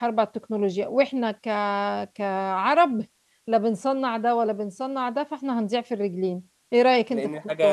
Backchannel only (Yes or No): No